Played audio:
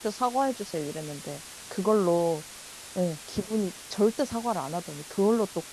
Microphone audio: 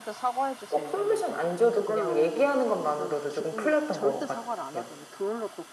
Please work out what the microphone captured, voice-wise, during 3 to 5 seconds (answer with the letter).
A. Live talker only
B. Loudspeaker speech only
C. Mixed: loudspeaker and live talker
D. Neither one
C